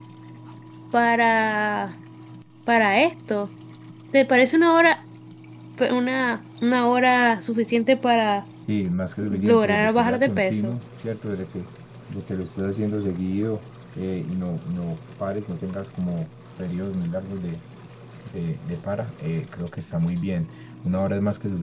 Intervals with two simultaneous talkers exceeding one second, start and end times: 9.2-10.7

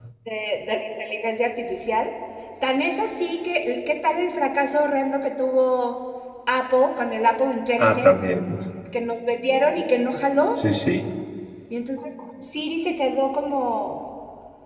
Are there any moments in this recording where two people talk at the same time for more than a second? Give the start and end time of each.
none

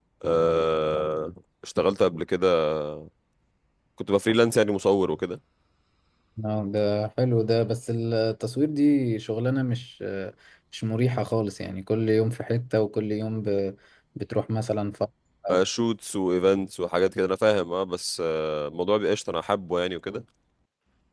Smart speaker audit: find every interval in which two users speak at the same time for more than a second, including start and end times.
none

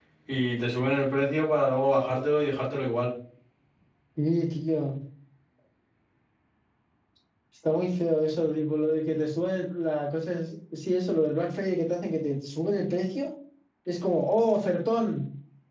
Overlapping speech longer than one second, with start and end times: none

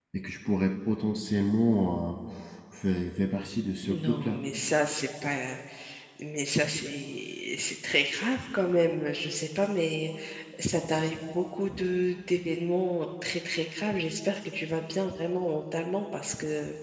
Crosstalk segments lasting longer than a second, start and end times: none

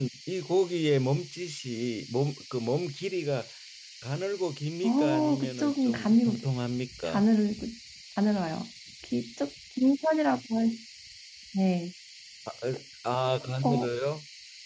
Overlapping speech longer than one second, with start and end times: 4.8-6.4

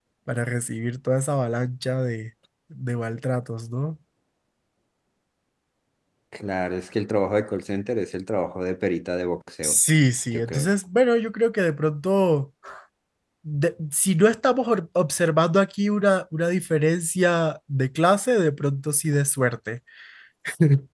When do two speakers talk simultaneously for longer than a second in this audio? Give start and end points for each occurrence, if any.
none

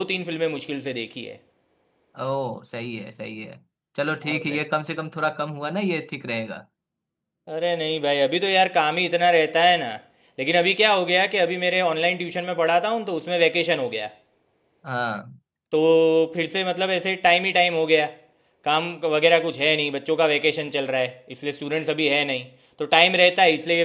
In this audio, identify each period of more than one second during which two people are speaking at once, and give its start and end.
none

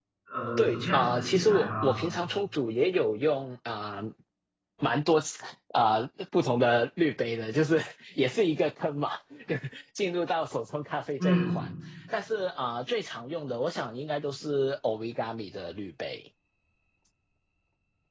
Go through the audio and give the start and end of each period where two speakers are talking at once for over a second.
0.6-2.0

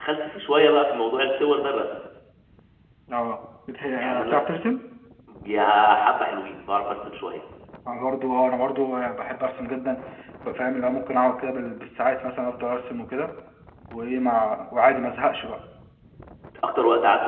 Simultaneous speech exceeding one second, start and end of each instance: none

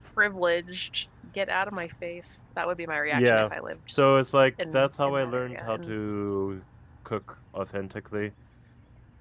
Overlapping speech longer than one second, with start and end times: 4.7-5.9

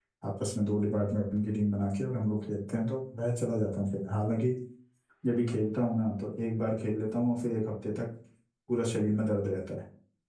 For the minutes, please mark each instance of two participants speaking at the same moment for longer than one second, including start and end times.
none

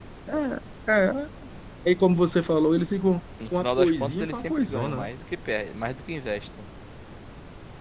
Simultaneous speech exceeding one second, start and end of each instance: 3.5-5.1

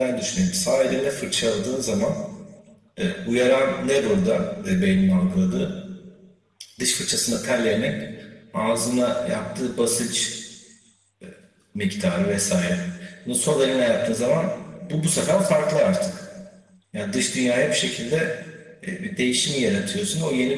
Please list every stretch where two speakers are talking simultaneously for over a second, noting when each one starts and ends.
none

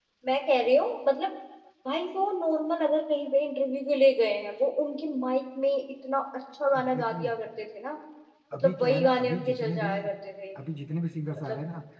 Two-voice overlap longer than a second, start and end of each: 8.5-9.9

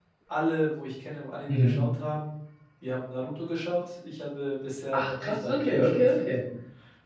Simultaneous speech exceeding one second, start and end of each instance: 4.9-6.2

